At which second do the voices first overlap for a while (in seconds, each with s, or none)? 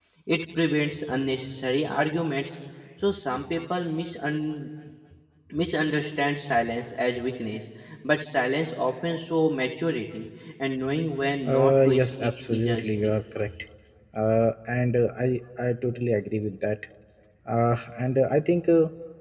11.4 s